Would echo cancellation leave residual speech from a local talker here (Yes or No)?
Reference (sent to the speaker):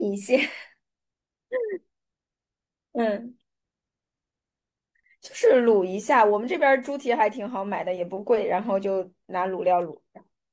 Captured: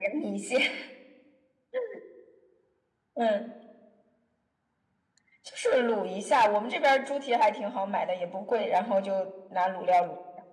No